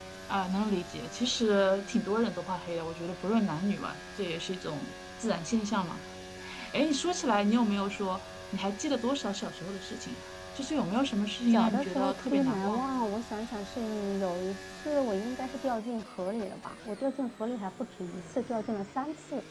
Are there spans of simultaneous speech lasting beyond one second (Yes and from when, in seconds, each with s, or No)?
Yes, from 11.5 s